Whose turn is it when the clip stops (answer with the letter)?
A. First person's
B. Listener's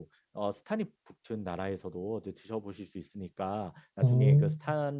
A